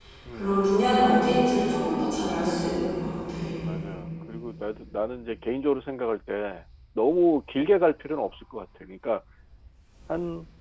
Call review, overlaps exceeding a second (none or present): none